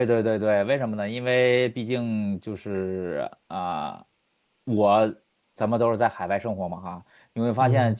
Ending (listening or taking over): listening